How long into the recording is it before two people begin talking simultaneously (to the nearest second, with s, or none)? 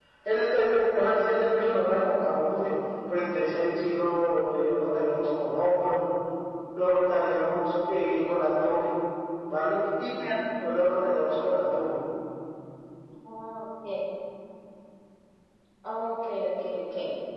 none